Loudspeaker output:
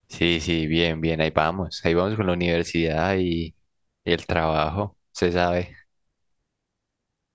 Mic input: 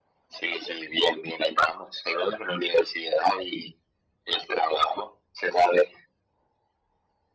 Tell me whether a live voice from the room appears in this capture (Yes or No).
No